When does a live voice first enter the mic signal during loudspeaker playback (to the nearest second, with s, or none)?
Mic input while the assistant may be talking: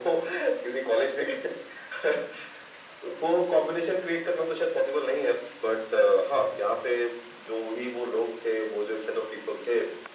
none